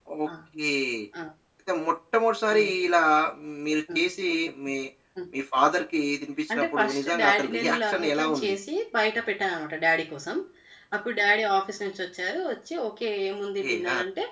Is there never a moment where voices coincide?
No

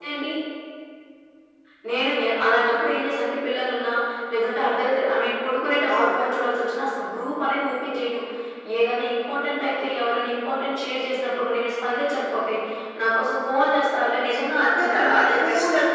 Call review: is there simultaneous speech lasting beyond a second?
Yes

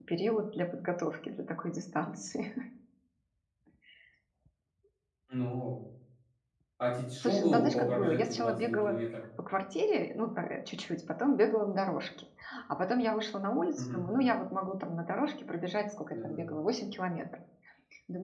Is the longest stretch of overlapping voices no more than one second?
No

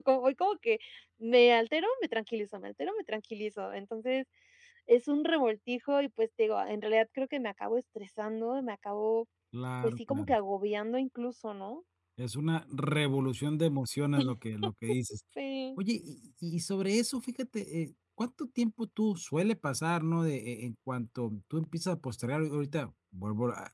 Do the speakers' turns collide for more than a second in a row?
No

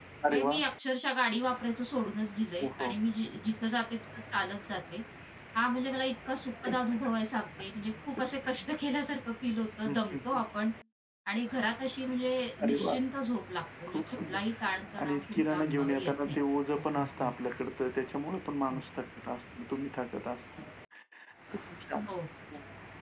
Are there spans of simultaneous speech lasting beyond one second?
Yes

